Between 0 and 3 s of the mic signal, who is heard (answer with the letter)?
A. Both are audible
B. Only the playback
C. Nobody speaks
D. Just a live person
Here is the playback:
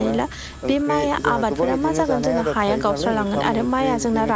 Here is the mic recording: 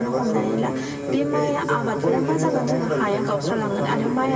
A